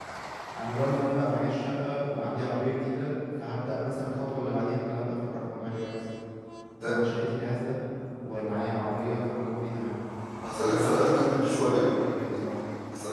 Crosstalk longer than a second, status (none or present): present